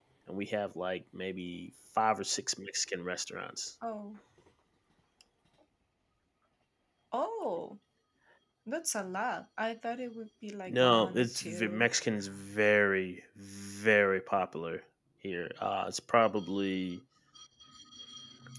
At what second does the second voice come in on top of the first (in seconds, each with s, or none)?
10.7 s